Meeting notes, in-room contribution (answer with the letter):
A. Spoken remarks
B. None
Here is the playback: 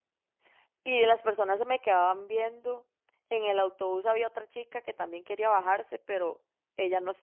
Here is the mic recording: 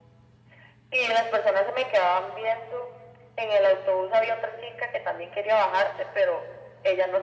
B